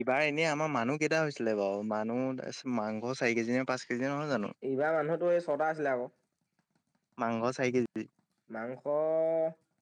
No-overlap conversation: Yes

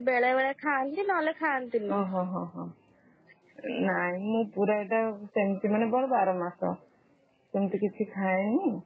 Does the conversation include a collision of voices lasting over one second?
No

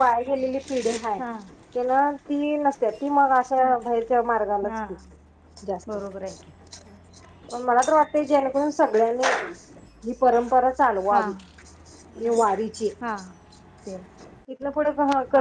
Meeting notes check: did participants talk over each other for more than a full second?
No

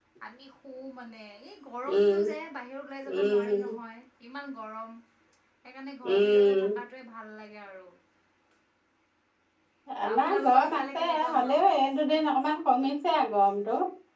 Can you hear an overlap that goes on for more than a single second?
Yes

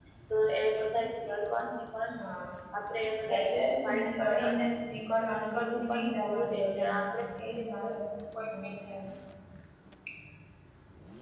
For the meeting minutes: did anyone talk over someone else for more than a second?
Yes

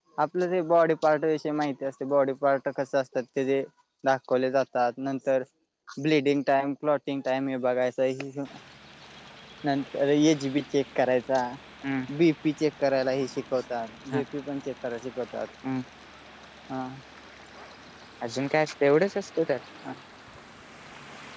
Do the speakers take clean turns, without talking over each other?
Yes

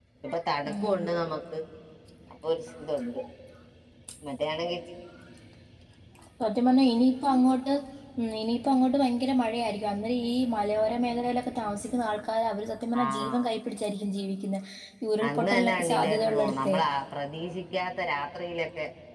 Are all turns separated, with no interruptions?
No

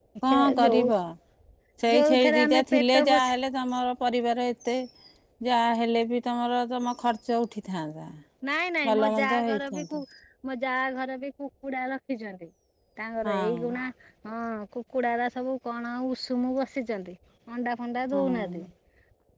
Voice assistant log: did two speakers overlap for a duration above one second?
Yes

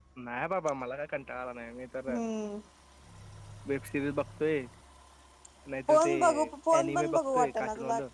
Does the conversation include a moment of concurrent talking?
Yes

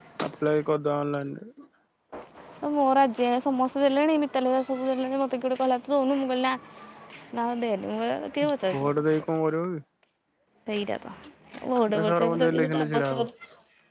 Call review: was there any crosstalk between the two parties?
Yes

